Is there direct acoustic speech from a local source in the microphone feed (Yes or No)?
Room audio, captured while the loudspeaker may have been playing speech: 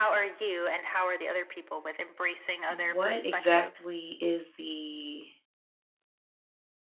Yes